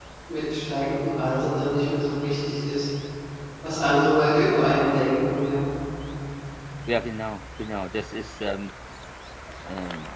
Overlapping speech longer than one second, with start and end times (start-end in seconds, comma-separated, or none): none